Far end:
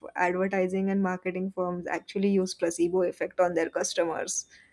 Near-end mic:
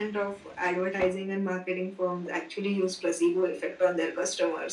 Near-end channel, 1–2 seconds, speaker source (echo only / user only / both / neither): echo only